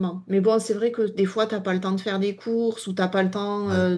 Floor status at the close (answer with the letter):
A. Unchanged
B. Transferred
A